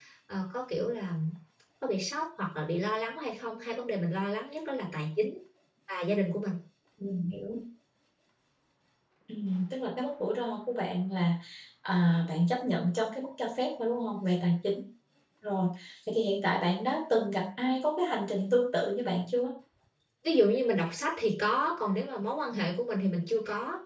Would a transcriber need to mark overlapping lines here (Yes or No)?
No